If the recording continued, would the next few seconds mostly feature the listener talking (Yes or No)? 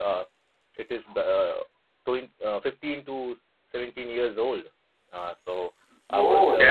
Yes